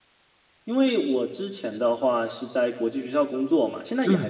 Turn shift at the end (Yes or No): No